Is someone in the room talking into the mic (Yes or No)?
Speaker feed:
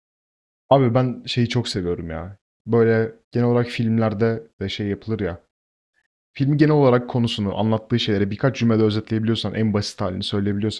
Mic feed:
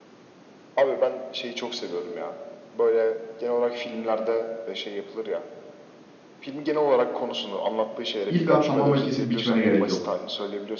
Yes